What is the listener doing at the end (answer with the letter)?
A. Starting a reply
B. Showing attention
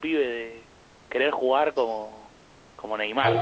A